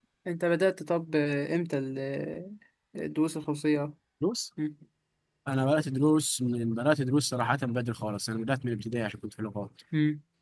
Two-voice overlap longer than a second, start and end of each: none

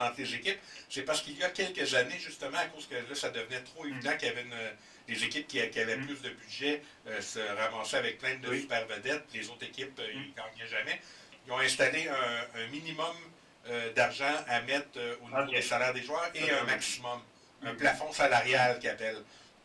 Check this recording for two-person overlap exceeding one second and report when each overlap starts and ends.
none

